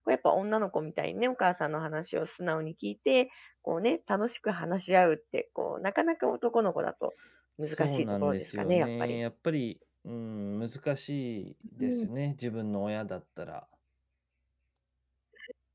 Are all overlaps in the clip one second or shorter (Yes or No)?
No